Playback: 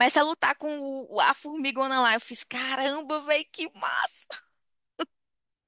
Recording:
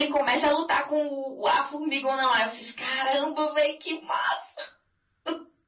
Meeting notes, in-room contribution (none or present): none